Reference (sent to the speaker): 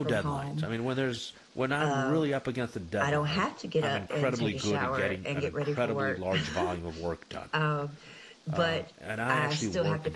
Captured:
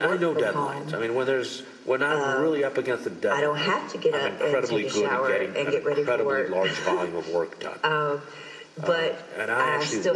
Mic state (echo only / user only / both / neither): echo only